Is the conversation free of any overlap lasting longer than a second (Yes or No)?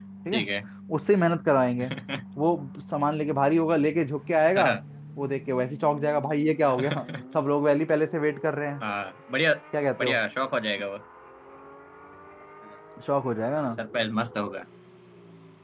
Yes